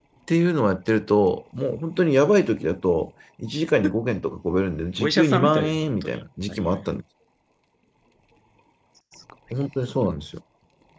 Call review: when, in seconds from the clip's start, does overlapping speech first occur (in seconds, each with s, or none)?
5.0 s